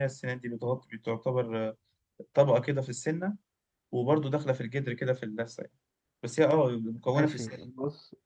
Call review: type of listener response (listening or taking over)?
taking over